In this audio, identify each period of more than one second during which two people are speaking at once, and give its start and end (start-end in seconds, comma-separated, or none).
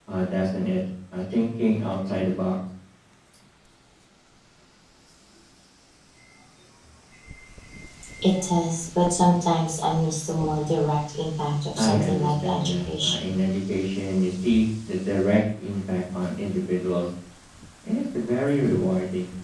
11.8-13.3